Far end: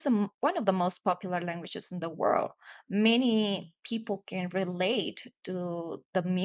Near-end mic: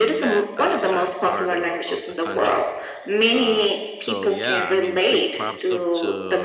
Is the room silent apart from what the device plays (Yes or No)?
No